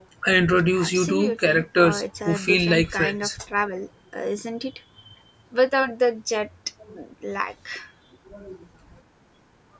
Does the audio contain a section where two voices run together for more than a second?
Yes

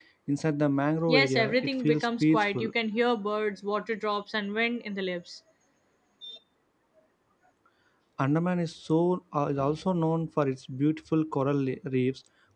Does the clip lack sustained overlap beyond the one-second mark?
No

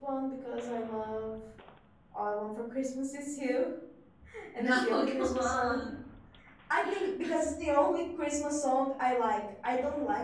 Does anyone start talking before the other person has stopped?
Yes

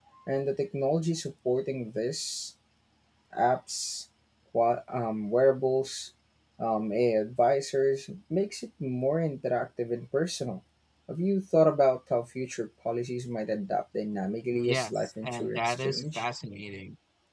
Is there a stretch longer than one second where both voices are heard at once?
Yes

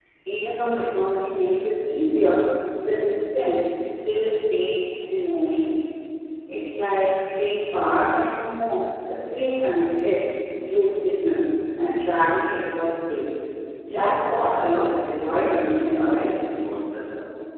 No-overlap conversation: No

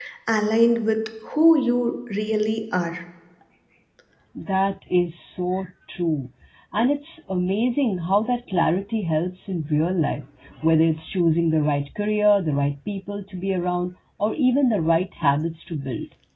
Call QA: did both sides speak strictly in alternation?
Yes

